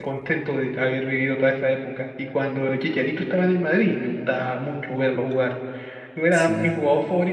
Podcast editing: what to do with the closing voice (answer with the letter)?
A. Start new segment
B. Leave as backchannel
B